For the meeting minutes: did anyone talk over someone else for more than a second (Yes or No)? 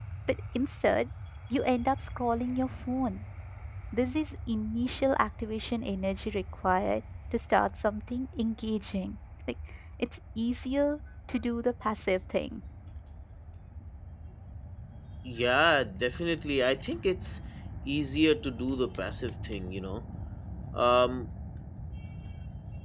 No